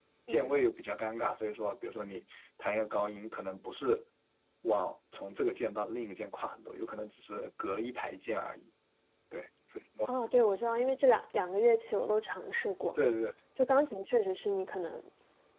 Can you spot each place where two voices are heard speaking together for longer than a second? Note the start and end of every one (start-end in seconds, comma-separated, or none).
none